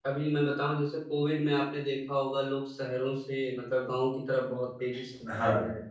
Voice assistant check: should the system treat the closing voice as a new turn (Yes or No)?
Yes